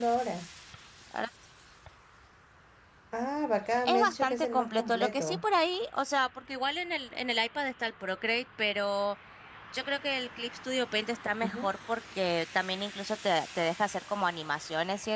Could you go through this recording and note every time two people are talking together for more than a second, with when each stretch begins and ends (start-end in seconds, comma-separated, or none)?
3.9-5.4